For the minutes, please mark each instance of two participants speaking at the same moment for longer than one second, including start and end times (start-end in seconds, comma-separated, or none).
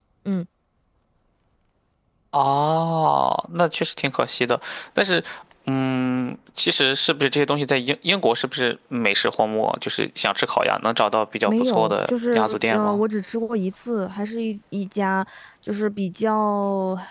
11.5-13.0